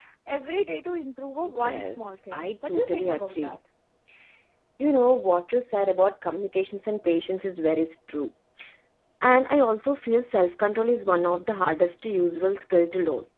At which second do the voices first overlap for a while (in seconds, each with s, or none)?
1.4 s